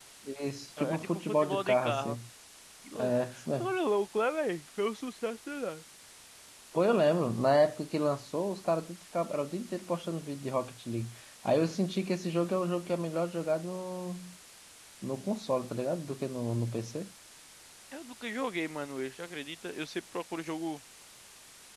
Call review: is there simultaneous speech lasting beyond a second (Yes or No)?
Yes